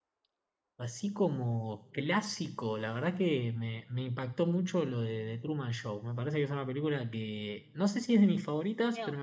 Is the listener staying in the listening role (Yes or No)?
Yes